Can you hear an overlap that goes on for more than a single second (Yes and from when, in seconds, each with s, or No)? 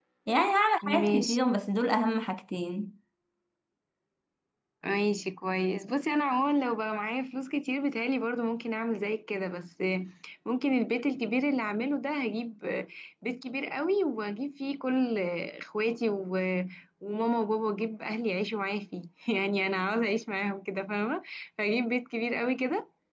No